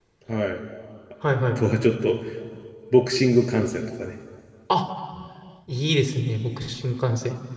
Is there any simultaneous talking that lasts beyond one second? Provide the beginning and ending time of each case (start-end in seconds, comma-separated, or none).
none